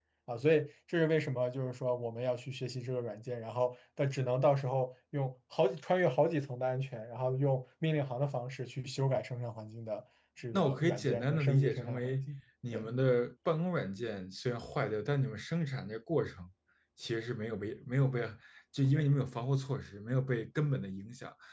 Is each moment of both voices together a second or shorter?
No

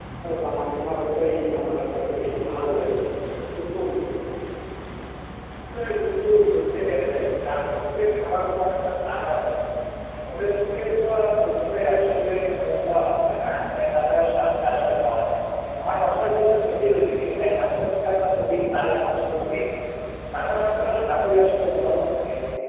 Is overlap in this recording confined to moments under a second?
Yes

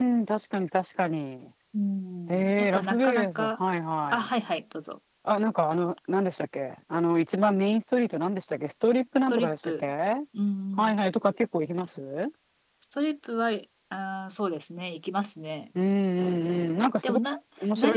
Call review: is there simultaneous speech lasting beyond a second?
Yes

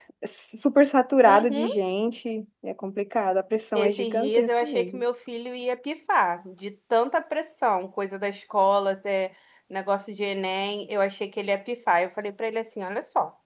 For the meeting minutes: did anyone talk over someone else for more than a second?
Yes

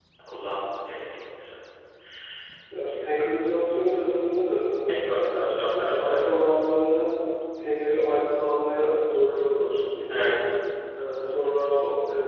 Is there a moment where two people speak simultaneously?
Yes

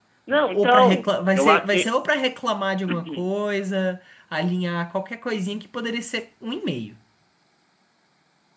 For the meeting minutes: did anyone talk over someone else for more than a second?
Yes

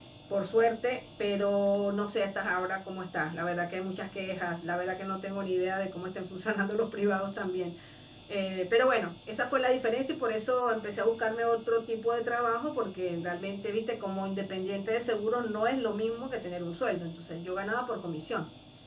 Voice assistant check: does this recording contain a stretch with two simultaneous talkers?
No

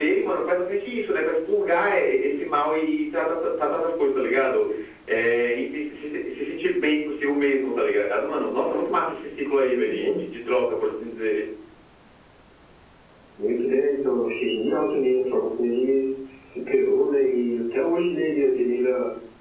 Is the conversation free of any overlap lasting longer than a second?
Yes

